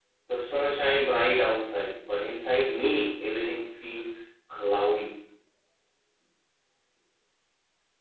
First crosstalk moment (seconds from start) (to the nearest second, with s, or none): none